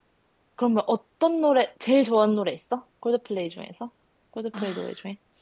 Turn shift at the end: Yes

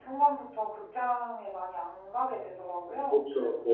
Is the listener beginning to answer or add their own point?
Yes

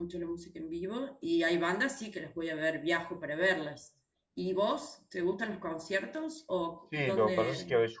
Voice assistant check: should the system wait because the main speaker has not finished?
No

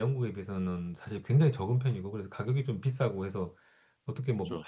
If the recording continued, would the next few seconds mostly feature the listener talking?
No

